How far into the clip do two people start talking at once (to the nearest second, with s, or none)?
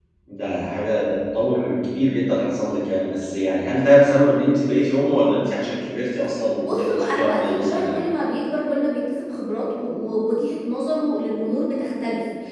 7 s